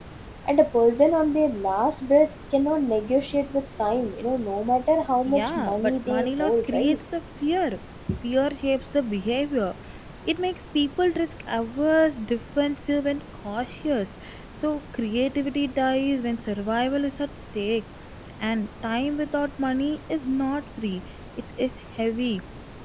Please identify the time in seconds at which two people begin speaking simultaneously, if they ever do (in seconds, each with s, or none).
5.2 s